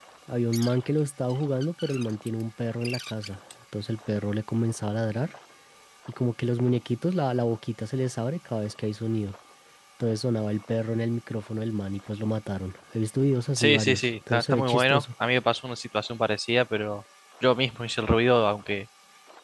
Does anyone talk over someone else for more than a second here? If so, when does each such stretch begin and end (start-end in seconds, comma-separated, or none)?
13.6-15.0